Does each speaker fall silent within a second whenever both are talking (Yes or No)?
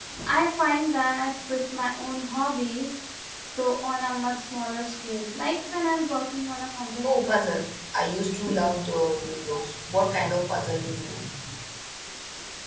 Yes